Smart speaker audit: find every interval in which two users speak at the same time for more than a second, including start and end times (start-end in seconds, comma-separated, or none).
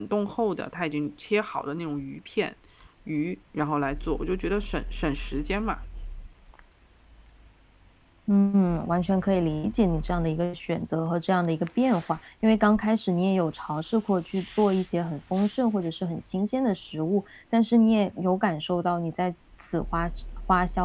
none